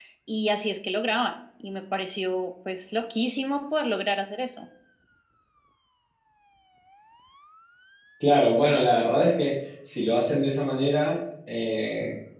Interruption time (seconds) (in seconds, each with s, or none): none